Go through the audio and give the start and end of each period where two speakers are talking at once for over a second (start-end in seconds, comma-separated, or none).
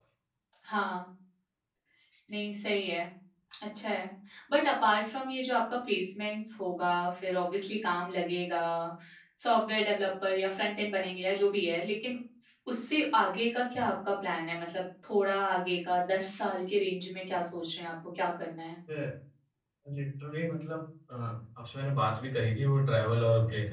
none